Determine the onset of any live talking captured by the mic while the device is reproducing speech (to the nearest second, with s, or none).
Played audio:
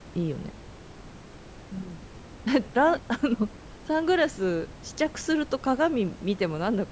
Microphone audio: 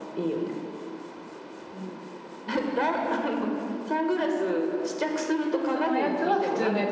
6 s